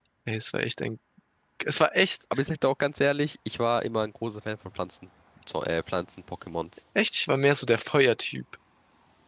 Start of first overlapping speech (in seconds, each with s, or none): none